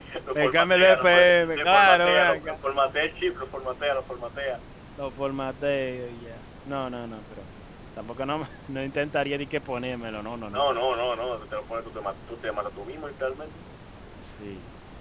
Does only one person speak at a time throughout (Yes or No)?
No